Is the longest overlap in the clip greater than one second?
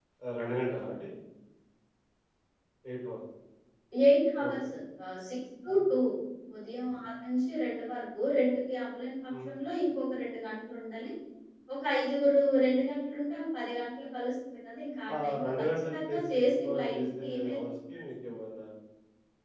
Yes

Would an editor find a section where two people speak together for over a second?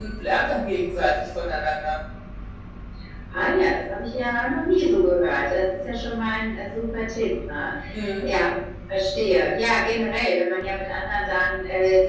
No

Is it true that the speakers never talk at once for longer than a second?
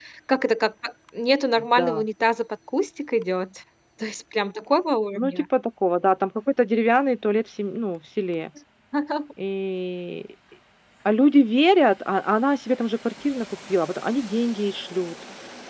Yes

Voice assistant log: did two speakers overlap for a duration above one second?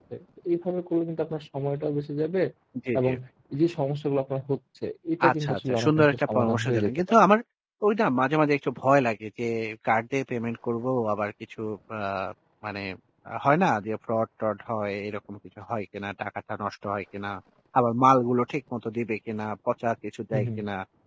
Yes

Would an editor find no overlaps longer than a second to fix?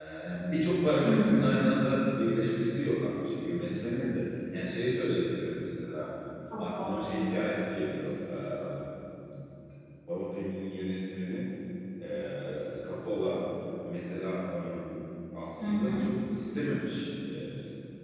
Yes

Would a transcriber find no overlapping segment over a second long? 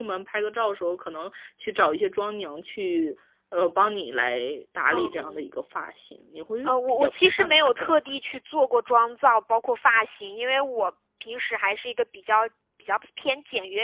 No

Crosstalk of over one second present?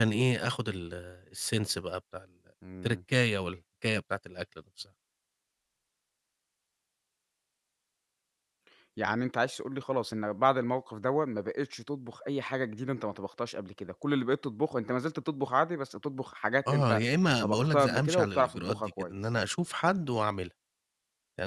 Yes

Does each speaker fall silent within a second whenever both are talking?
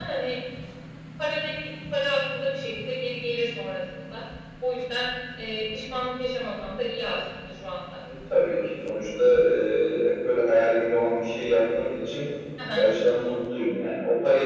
Yes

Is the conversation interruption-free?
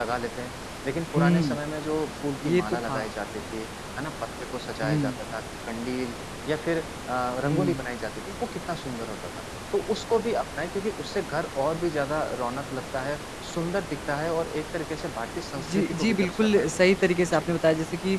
No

